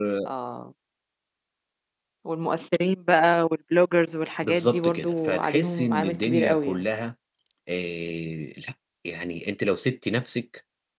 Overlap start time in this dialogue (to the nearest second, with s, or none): 4 s